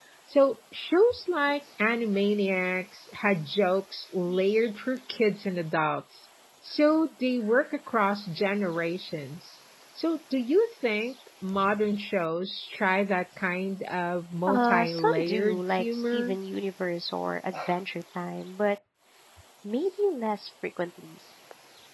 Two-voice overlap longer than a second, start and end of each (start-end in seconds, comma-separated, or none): 14.5-16.4